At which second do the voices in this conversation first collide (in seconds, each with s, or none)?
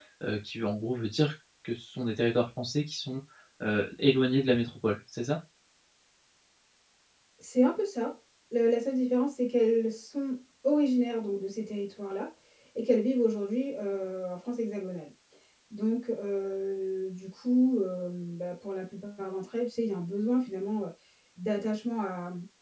none